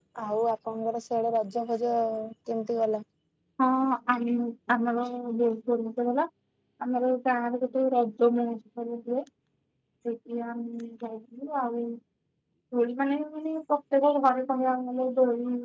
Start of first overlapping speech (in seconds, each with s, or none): none